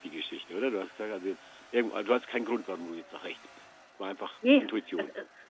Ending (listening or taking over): taking over